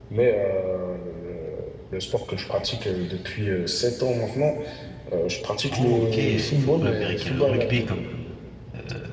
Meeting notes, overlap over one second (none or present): present